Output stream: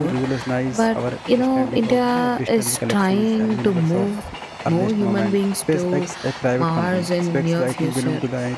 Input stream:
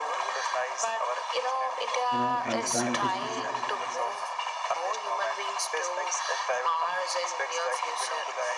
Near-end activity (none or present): present